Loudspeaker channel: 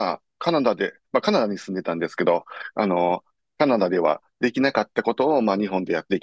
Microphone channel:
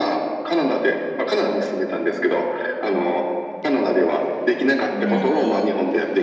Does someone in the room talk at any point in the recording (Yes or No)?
Yes